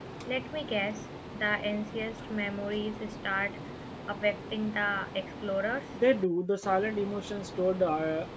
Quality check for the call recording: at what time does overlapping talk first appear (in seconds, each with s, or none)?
none